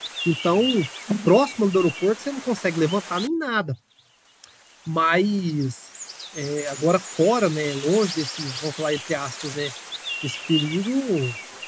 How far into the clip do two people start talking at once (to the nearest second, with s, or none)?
none